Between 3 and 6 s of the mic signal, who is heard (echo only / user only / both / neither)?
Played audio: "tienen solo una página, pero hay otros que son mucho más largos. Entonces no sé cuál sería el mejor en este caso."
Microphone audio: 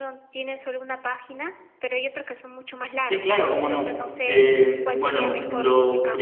both